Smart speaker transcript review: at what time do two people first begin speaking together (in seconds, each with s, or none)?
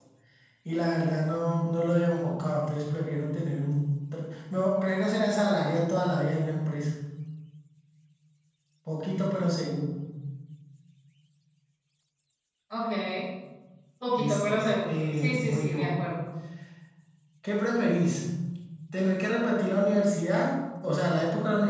14.2 s